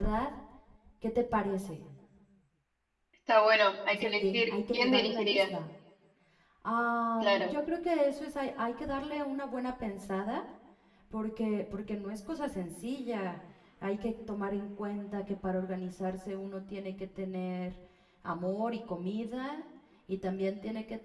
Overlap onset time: 3.9 s

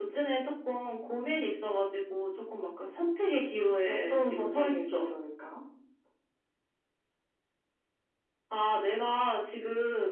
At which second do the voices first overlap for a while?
3.8 s

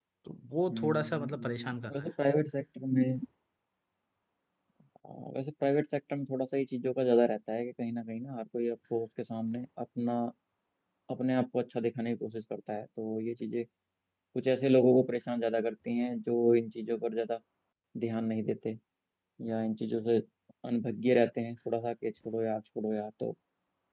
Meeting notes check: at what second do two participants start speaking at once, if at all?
0.7 s

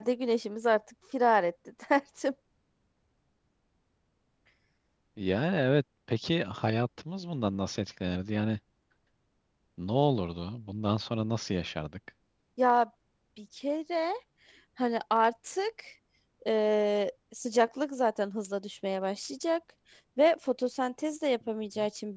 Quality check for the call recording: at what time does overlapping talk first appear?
none

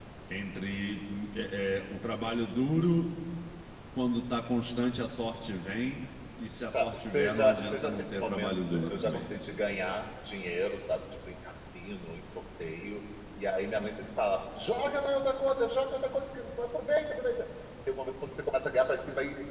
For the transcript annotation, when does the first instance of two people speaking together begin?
6.7 s

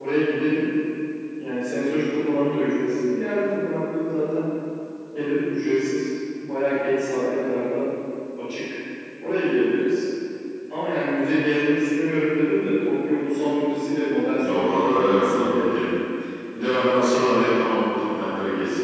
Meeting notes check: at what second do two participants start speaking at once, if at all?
14.4 s

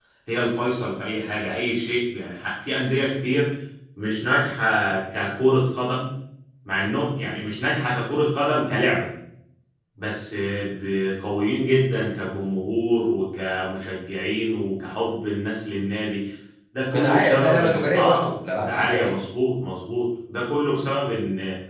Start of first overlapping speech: 16.9 s

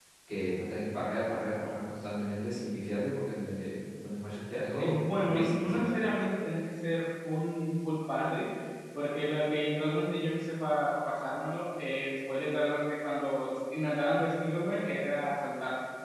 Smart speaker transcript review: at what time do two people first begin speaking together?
4.8 s

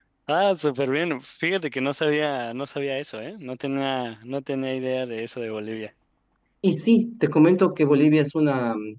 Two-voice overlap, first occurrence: none

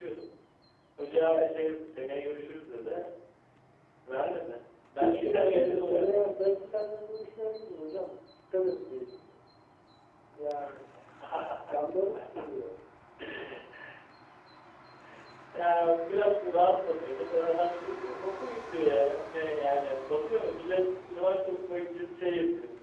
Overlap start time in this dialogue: 5.0 s

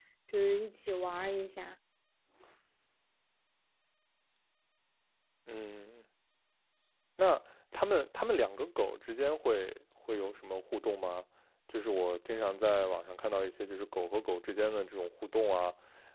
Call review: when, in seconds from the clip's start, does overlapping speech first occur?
none

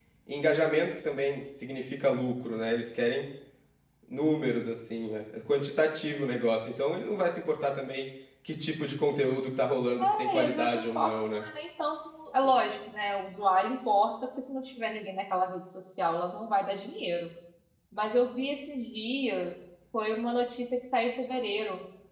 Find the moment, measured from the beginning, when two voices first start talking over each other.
10.0 s

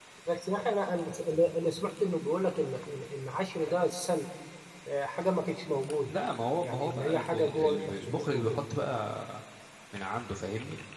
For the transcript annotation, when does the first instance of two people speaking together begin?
6.6 s

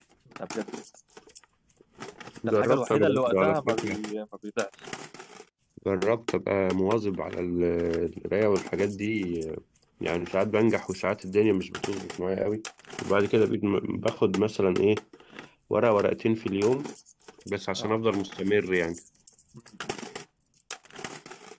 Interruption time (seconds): 2.5 s

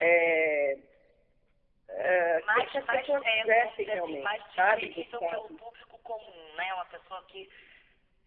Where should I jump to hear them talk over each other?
2.5 s

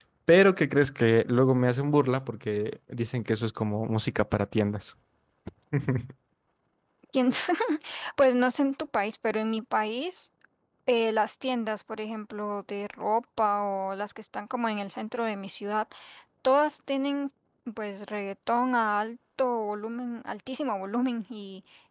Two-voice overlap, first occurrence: none

